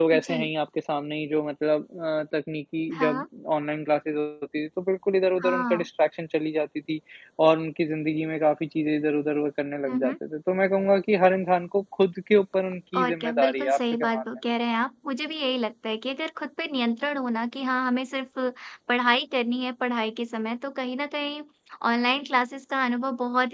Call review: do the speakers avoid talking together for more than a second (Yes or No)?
No